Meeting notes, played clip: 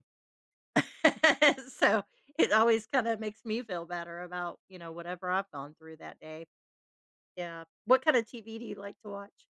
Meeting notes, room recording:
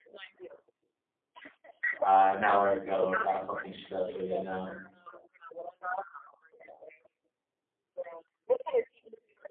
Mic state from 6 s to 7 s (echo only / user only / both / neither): echo only